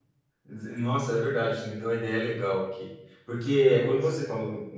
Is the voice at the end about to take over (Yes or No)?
No